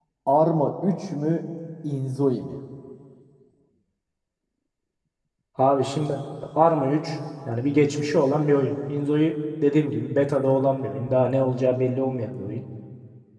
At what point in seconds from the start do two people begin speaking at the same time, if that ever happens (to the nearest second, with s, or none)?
none